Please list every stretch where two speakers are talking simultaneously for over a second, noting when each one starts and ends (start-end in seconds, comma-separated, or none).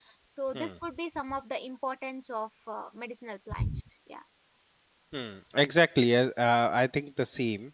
none